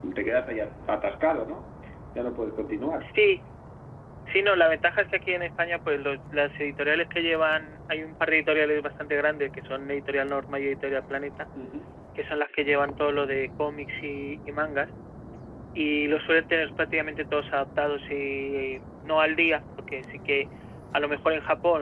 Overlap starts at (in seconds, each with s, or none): none